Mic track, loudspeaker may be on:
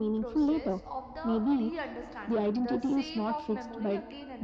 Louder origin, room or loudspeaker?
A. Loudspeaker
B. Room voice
A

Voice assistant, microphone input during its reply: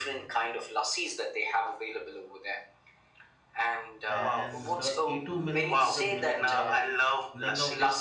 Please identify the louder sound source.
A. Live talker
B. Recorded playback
B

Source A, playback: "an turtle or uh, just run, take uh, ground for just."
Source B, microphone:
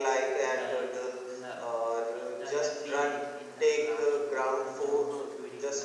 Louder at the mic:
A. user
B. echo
B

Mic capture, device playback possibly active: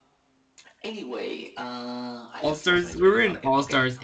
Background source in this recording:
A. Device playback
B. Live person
A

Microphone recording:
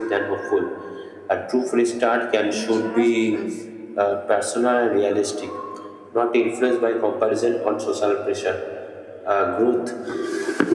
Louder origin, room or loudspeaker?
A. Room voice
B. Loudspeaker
B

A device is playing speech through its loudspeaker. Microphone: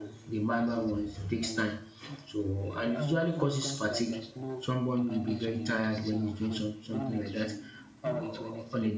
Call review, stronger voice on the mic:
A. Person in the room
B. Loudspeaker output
A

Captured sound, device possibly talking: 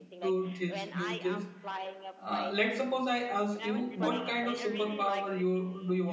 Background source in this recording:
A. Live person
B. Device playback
B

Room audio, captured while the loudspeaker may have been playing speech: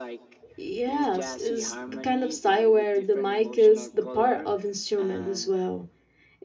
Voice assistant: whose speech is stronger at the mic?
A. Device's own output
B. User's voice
B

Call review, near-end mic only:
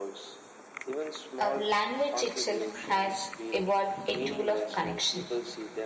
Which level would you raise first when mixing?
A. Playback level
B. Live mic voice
A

